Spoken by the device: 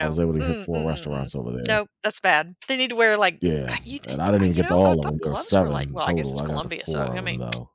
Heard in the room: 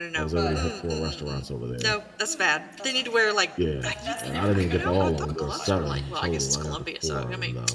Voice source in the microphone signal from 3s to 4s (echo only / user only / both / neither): both